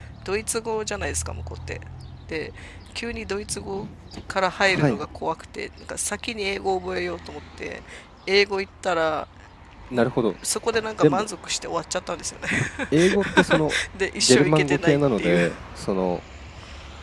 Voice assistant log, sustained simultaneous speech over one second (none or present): present